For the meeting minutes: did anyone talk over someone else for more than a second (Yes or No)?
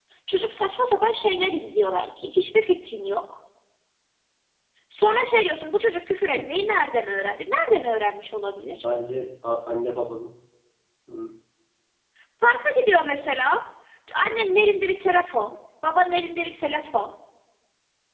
No